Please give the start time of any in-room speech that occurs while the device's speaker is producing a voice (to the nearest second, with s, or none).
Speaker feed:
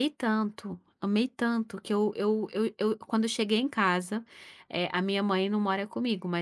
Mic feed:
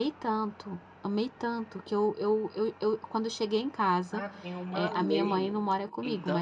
4 s